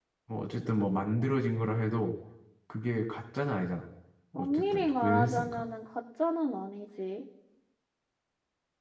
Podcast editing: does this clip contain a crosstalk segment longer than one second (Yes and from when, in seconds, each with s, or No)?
Yes, from 4.4 s